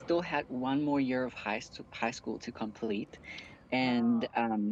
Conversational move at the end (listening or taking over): listening